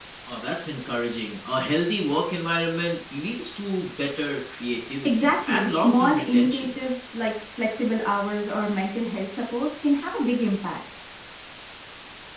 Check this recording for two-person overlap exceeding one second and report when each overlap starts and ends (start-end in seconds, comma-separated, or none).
5.0-6.7